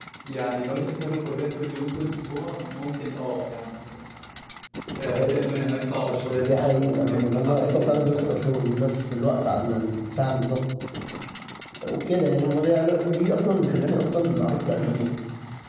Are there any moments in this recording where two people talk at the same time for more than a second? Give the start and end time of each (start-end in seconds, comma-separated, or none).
6.4-8.4